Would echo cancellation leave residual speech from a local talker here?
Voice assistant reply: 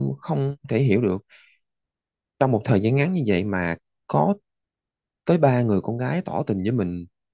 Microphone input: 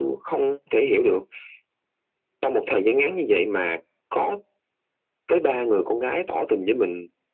No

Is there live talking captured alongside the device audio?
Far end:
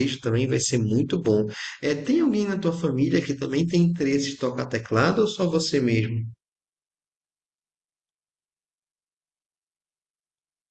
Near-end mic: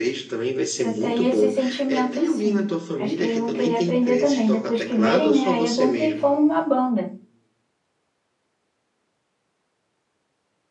Yes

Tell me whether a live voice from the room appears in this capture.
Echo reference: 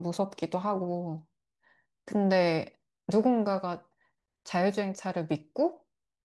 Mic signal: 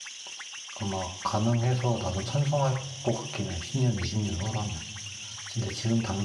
Yes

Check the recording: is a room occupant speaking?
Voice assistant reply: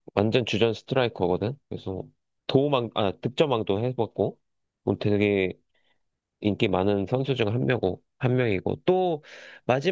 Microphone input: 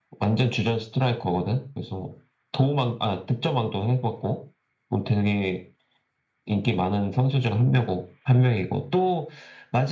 No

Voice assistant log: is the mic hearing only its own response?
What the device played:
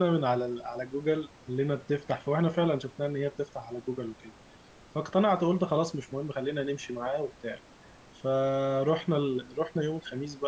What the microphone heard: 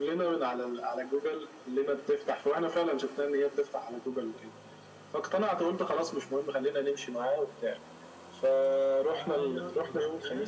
No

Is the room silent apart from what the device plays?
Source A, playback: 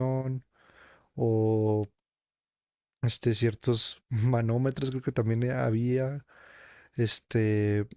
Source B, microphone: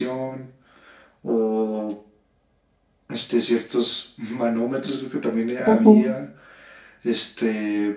No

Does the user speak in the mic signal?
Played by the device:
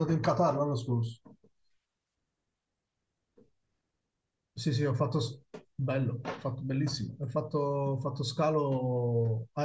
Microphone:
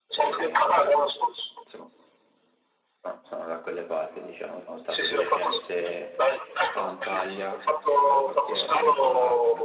Yes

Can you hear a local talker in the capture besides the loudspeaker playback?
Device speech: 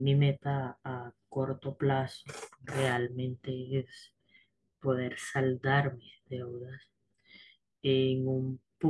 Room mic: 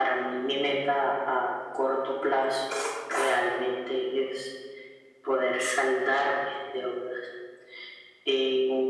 No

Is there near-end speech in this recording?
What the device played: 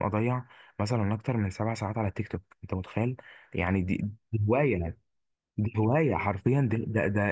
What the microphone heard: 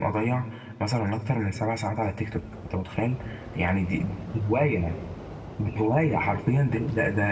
No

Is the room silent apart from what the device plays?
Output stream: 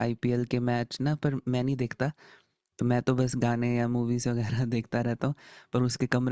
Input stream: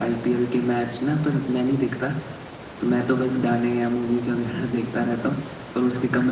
Yes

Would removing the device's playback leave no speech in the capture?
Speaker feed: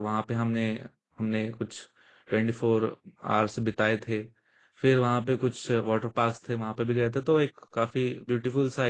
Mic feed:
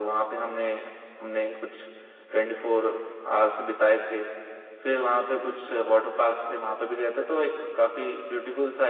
Yes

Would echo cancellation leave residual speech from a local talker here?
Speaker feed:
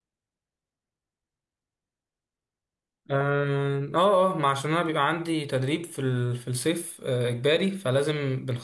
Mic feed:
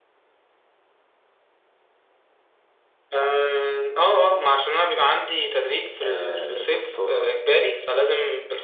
Yes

